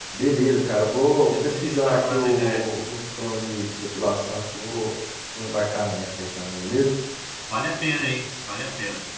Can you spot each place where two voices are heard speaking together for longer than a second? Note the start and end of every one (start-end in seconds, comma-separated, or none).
1.2-2.7